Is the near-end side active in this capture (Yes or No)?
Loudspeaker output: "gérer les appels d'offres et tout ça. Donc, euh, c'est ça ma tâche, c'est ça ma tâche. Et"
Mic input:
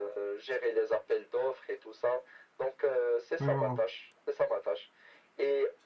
Yes